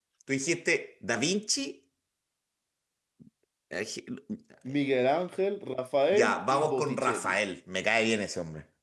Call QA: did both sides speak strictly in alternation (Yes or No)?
No